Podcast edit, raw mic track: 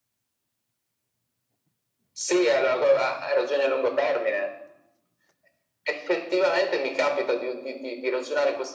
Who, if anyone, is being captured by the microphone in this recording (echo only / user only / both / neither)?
echo only